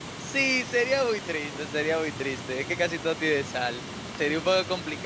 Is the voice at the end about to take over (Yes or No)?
No